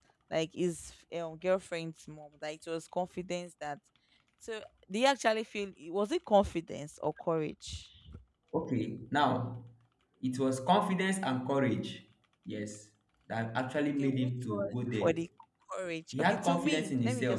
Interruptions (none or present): present